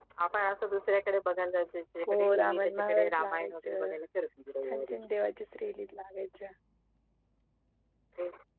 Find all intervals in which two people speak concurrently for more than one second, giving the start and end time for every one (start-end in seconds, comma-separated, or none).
2.1-3.9